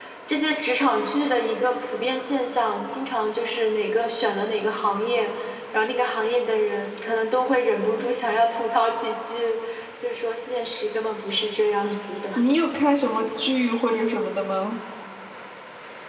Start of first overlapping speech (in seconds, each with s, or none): none